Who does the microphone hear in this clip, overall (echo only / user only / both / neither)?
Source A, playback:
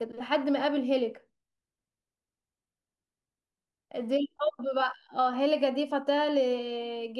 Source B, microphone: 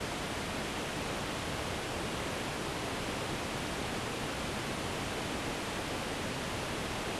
neither